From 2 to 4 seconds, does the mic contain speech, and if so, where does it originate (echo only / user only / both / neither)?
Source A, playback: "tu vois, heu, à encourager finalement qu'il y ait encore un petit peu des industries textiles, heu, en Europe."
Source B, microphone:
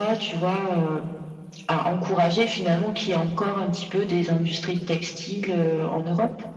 echo only